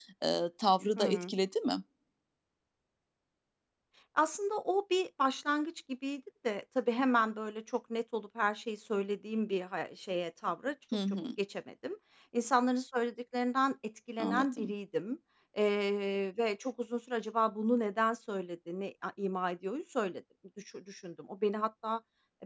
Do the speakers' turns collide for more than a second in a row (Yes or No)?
No